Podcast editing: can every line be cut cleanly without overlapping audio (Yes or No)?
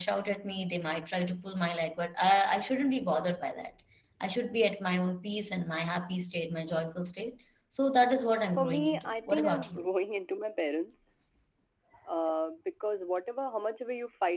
No